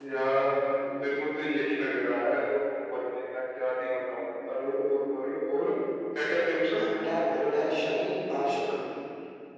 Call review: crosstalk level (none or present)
none